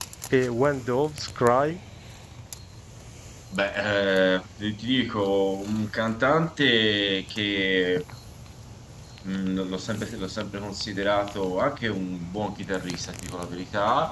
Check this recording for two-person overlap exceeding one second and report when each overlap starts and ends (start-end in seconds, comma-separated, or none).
none